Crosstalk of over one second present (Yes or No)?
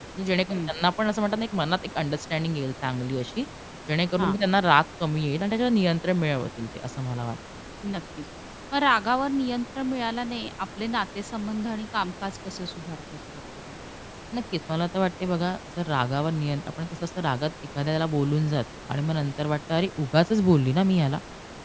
No